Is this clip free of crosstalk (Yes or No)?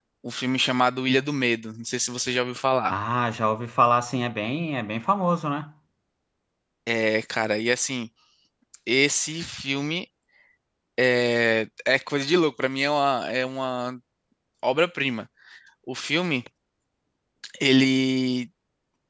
Yes